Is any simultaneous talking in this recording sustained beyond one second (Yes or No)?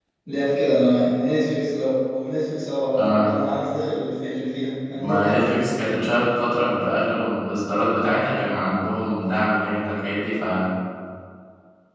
No